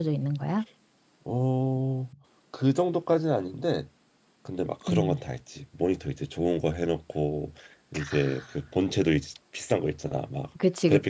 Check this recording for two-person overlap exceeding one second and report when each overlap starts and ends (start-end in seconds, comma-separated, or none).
none